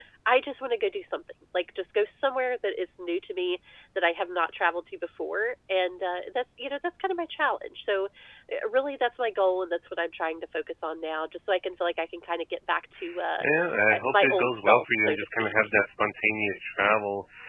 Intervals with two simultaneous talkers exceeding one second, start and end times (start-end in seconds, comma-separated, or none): 13.9-15.5